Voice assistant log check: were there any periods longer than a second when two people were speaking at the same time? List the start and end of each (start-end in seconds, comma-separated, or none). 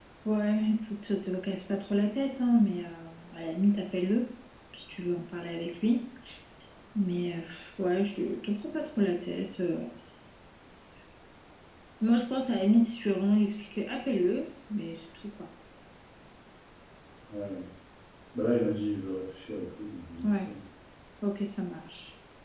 none